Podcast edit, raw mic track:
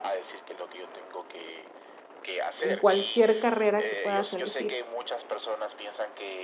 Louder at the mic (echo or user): user